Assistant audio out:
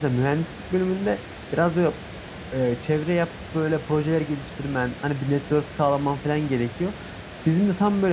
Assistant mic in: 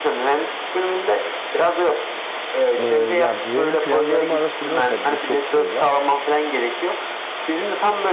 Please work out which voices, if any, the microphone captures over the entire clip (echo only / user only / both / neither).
both